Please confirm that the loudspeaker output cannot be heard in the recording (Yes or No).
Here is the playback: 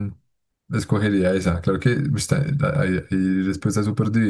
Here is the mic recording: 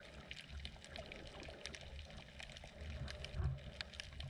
Yes